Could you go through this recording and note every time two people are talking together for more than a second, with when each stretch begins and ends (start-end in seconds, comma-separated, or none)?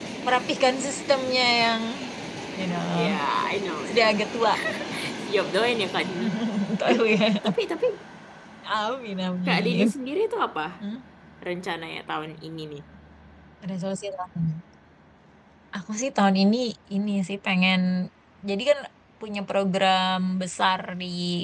none